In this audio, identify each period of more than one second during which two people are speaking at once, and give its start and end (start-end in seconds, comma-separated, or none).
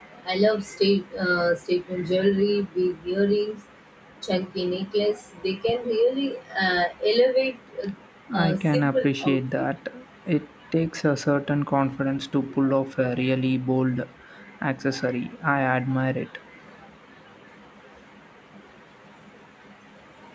8.4-9.7